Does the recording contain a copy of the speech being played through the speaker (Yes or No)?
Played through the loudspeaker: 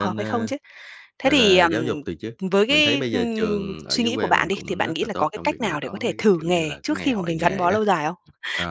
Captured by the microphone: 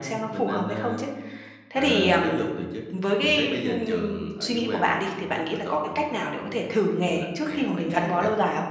Yes